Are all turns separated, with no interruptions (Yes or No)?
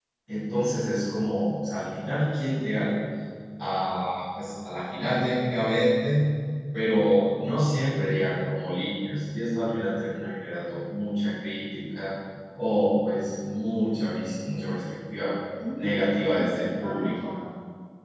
No